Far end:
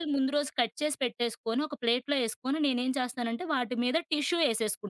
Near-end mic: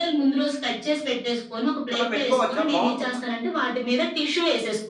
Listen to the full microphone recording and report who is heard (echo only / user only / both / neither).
both